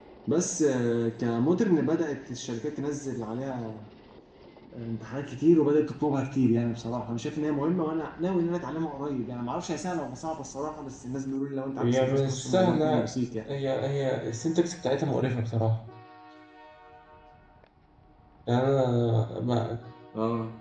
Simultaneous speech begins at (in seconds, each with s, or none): 11.8 s